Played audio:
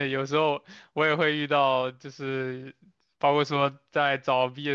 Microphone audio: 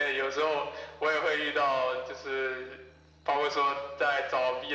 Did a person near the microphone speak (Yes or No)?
No